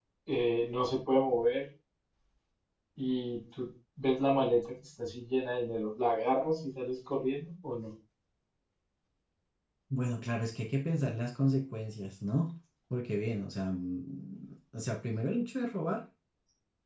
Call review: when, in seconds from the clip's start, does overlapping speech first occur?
none

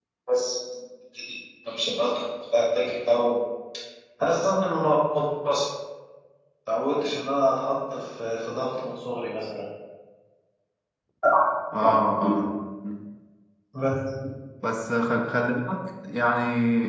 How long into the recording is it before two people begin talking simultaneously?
none

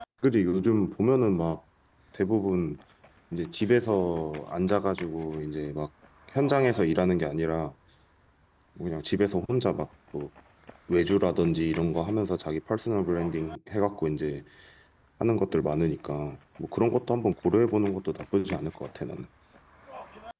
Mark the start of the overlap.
none

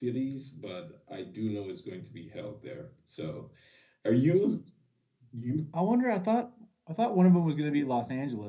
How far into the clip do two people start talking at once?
none

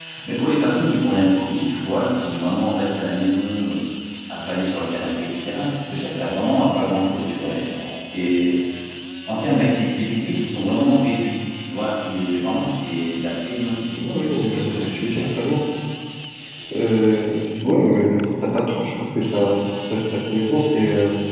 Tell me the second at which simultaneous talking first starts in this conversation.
14 s

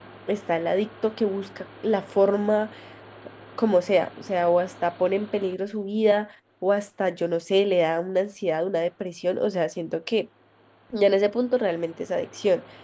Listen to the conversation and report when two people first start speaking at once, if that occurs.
none

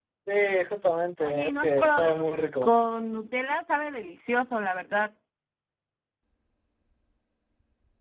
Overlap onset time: 1 s

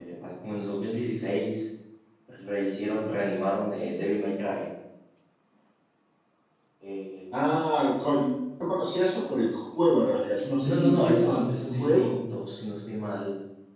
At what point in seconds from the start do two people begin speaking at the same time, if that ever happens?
11 s

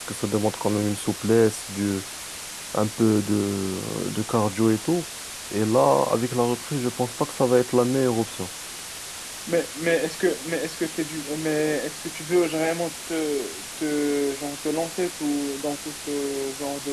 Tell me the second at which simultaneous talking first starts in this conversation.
none

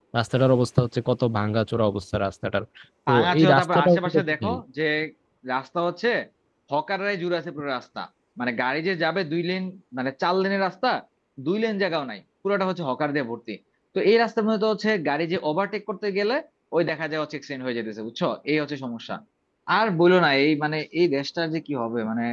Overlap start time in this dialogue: 3 s

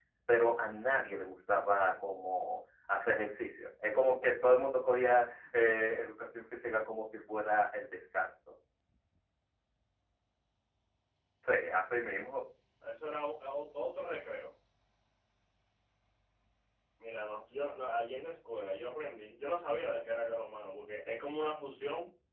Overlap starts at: none

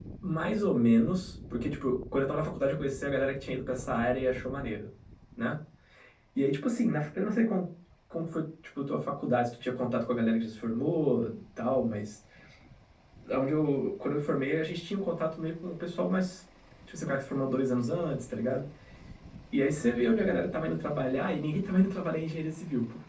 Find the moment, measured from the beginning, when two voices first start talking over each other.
none

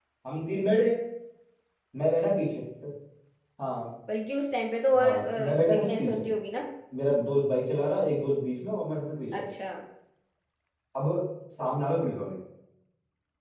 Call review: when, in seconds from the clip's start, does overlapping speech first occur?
5 s

